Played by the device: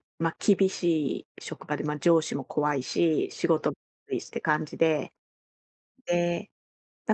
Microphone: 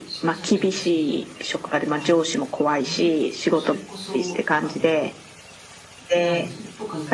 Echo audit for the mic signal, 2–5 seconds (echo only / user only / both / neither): both